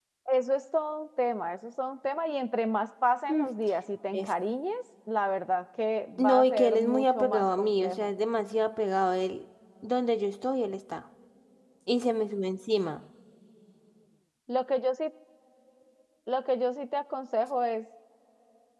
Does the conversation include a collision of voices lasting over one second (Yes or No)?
Yes